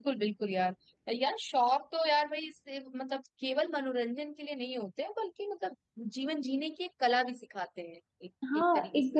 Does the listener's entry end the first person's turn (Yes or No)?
Yes